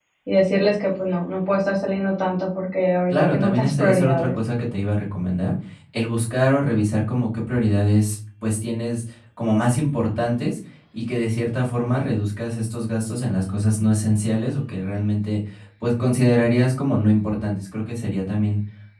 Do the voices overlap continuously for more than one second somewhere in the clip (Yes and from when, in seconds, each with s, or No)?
Yes, from 3.1 s